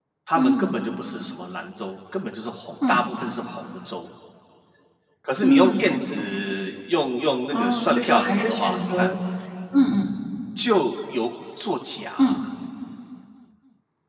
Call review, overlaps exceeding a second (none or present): present